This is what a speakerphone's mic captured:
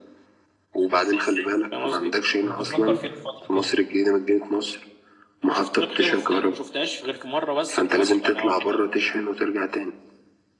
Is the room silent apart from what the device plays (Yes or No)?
No